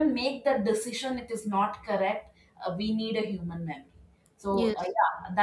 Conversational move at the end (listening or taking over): listening